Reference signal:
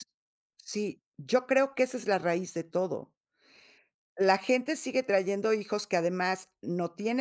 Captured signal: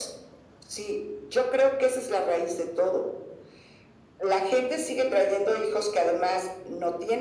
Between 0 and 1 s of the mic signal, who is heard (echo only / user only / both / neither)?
echo only